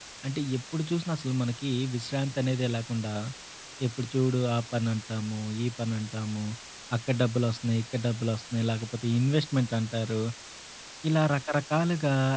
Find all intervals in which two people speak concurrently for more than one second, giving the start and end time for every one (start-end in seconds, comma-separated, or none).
none